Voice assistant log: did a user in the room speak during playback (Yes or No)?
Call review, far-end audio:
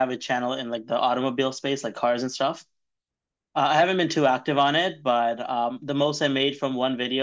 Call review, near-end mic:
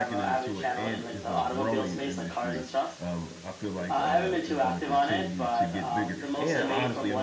Yes